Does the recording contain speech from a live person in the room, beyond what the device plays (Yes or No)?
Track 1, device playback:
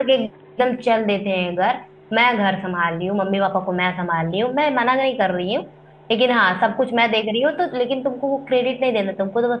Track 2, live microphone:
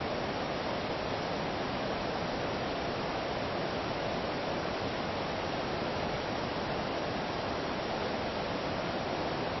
No